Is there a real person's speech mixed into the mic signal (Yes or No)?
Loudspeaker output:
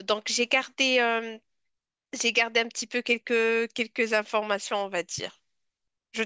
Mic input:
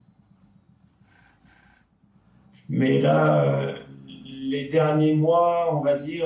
Yes